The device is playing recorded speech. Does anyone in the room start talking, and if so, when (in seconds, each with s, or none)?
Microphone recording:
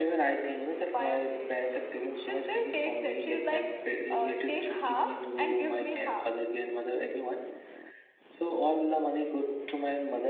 none